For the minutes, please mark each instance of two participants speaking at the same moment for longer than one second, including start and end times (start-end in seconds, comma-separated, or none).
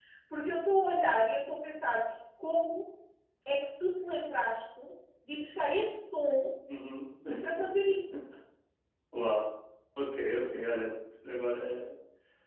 none